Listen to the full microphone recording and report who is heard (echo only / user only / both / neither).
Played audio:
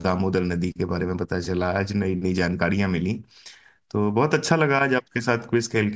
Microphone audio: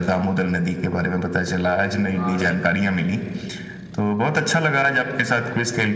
both